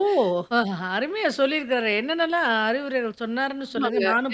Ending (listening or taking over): taking over